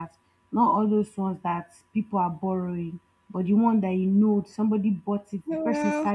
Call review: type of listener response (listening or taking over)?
listening